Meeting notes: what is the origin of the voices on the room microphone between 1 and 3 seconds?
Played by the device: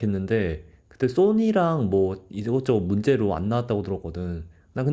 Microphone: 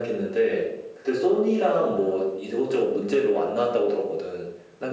echo only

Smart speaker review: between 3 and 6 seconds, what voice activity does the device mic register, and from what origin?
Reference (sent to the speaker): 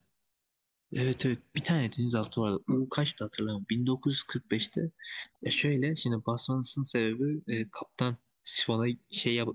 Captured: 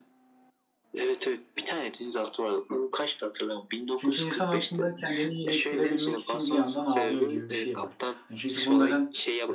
both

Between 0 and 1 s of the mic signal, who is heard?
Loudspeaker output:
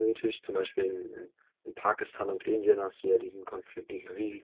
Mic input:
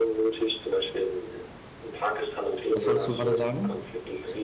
echo only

